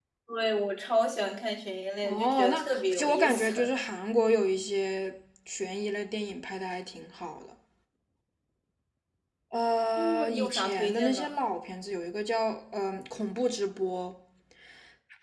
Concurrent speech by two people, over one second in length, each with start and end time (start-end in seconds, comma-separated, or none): 2.0-3.7, 10.0-11.3